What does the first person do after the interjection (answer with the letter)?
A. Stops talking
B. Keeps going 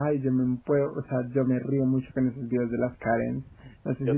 B